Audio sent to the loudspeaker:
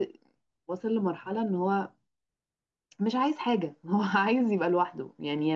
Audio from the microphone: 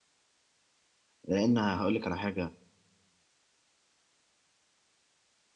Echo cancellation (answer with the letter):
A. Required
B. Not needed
B